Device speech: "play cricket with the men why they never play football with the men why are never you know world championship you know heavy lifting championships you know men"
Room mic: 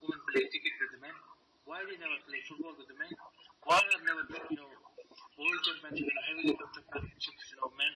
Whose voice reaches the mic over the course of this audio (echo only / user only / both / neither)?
echo only